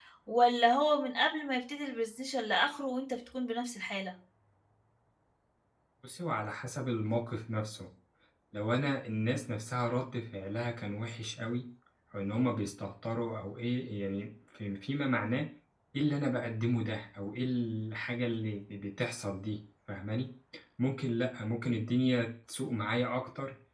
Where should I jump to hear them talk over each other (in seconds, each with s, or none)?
none